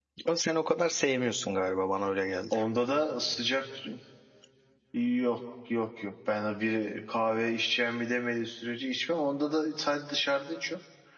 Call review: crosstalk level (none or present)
none